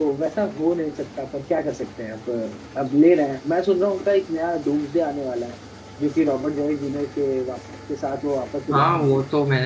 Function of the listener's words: taking over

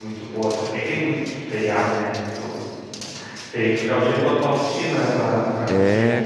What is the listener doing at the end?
taking over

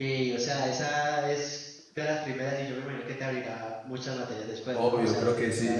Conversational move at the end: taking over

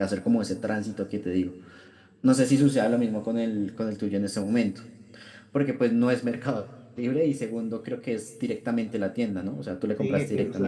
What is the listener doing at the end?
taking over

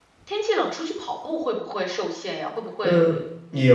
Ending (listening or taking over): taking over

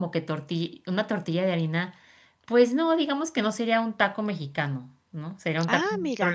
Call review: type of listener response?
listening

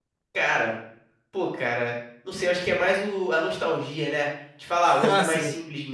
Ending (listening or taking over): listening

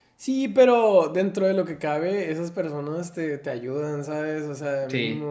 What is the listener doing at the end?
listening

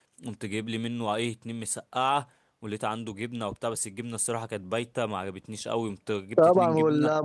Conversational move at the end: taking over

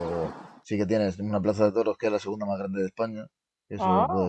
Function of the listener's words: listening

